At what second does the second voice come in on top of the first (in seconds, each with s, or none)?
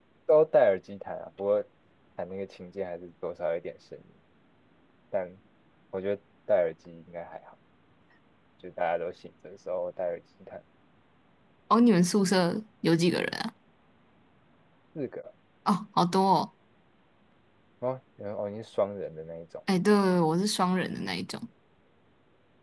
none